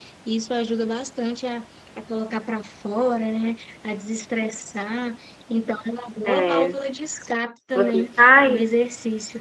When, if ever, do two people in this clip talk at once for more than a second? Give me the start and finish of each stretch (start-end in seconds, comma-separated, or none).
none